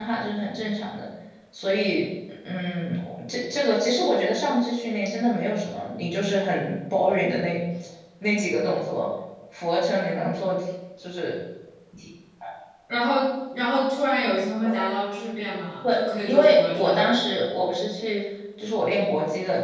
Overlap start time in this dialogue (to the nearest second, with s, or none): 16 s